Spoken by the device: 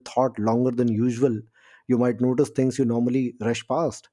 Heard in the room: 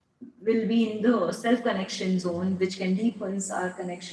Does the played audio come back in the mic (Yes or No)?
No